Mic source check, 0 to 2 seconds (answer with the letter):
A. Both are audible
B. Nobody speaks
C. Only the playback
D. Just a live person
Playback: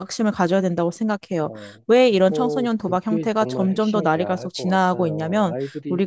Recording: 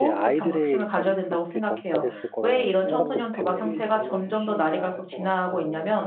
A